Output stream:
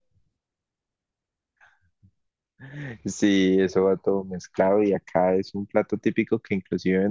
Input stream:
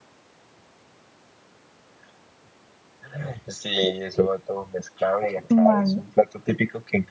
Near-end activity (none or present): present